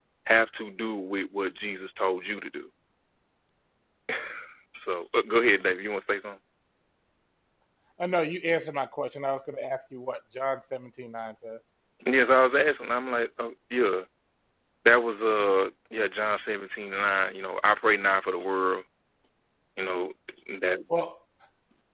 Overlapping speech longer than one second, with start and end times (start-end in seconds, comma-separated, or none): none